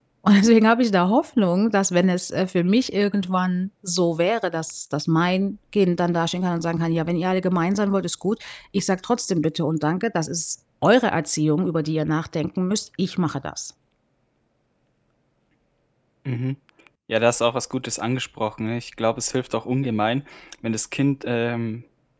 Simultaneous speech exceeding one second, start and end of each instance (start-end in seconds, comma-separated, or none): none